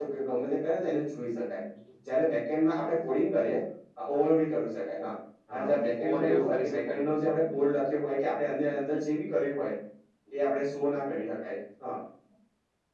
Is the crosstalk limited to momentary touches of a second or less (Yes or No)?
No